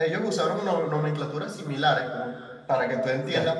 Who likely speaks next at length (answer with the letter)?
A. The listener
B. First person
B